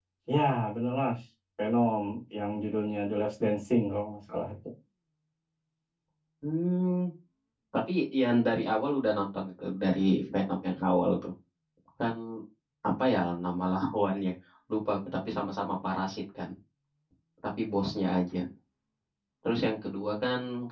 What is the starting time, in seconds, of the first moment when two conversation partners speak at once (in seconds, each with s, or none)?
none